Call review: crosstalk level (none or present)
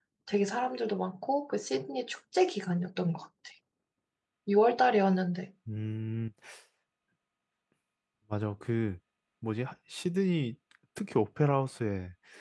none